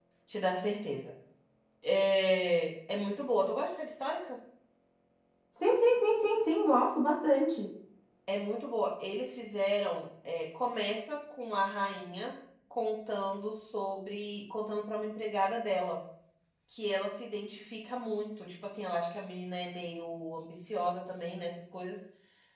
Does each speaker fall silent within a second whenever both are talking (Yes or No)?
Yes